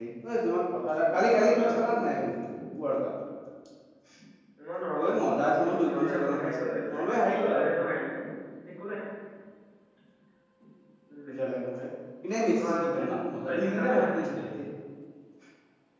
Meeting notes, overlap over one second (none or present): present